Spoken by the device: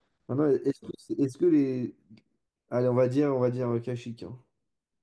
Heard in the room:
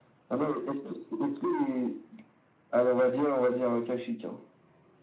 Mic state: echo only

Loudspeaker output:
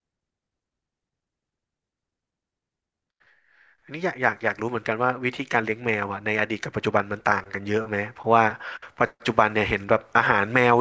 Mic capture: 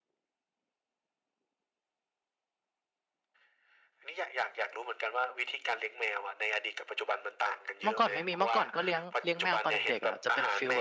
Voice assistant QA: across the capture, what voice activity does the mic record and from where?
both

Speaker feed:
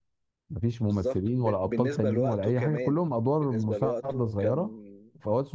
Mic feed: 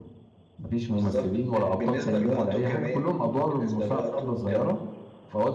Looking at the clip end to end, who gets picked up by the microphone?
echo only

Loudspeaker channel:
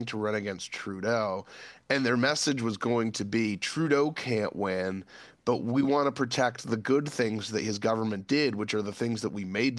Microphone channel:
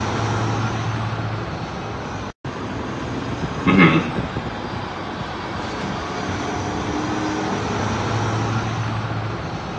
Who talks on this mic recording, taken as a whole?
user only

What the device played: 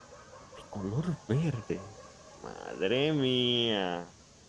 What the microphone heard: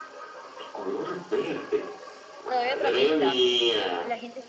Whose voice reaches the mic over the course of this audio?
both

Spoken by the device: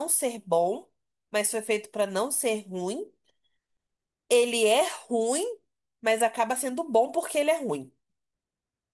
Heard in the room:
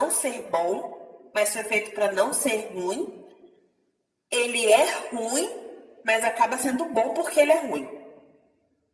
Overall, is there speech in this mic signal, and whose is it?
echo only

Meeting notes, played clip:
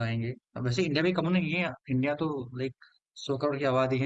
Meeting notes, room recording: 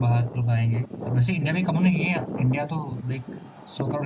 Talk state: echo only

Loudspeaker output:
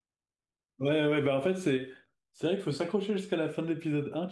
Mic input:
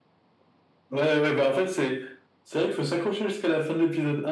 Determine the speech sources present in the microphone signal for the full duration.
echo only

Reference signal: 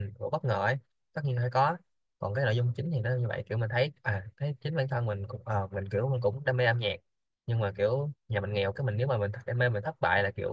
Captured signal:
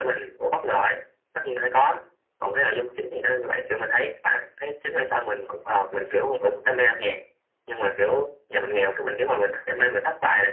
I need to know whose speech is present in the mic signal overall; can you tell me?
echo only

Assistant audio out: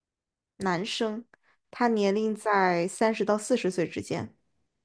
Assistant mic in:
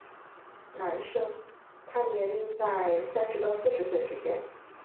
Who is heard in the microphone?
echo only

